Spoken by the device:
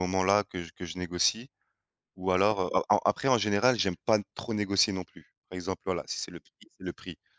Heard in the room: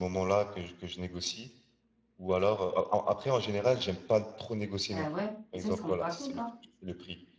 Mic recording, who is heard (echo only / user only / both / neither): both